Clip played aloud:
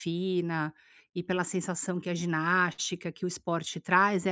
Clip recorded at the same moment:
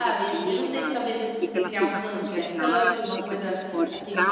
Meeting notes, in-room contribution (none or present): present